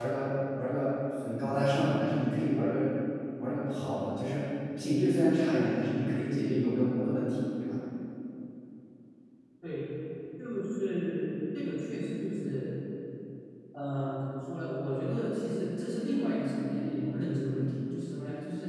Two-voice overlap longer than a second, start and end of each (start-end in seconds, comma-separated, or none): none